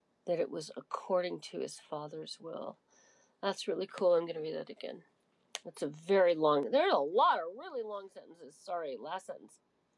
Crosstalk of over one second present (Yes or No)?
No